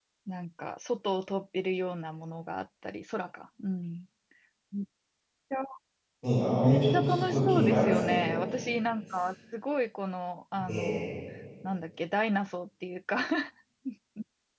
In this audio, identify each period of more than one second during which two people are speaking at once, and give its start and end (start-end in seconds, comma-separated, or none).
6.6-8.4